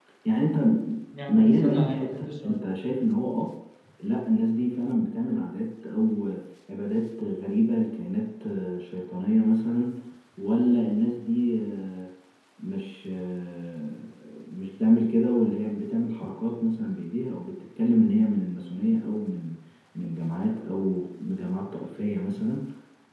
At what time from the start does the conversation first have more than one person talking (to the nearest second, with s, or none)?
1 s